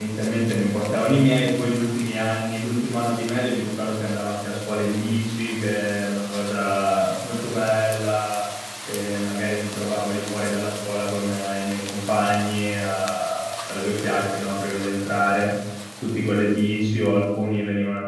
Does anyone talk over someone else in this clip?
No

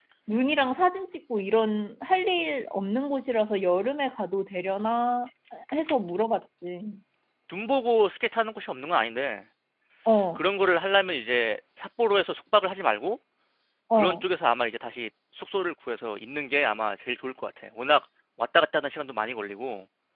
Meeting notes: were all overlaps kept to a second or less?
Yes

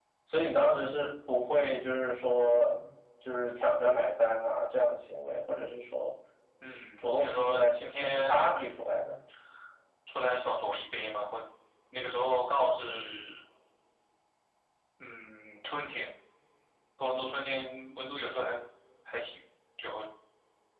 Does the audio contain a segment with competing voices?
Yes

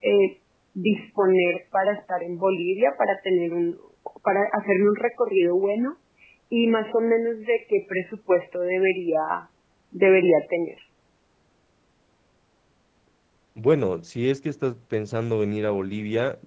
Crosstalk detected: No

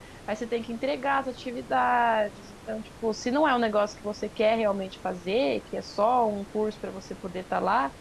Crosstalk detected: No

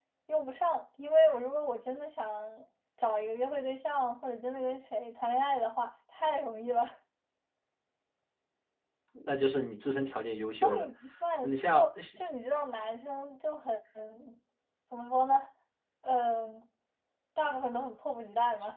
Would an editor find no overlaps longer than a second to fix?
Yes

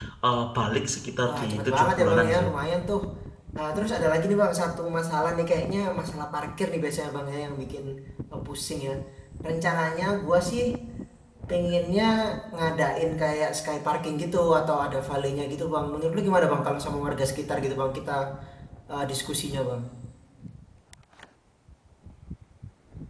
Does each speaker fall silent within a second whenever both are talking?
No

